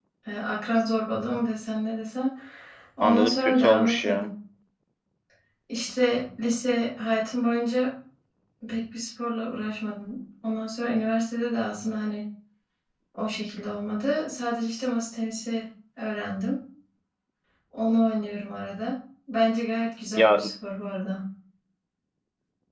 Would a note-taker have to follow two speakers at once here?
Yes, from 3.0 s

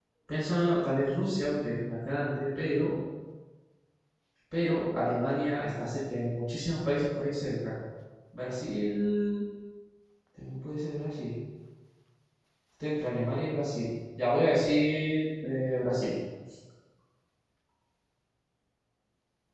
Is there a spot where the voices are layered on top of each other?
No

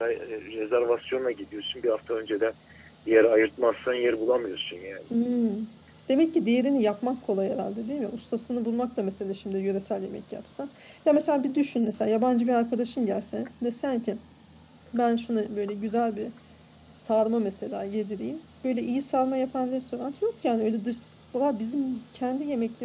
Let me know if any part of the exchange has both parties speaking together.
No

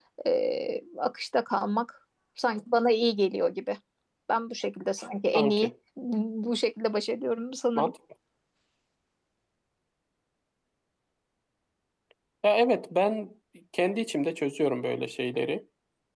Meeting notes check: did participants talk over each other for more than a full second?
No

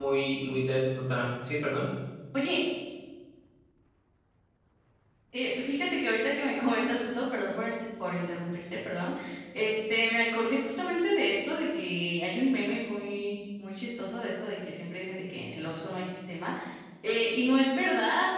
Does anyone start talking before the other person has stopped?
No

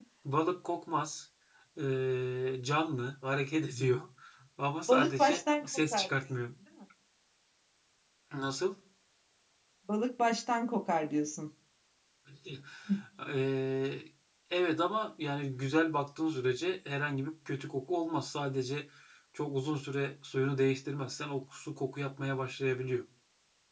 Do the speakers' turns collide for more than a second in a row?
Yes, from 4.9 s

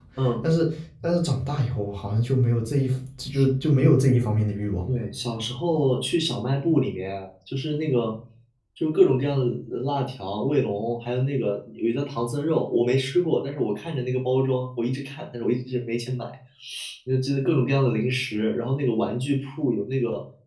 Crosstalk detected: No

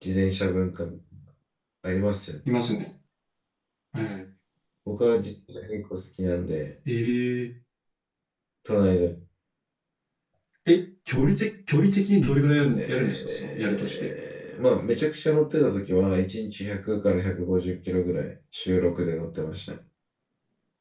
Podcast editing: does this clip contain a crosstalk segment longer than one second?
Yes, from 12.7 s

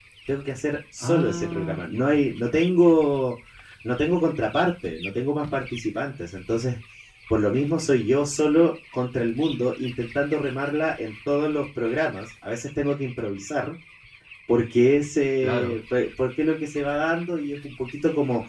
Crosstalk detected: Yes, from 1.0 s

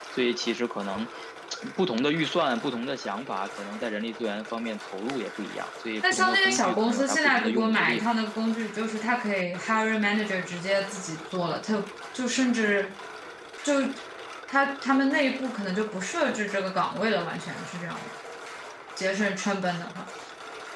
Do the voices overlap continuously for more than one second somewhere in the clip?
Yes, from 6.0 s

